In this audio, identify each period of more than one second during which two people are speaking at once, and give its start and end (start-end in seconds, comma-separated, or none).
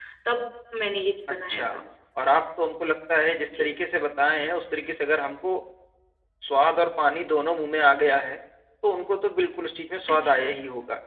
none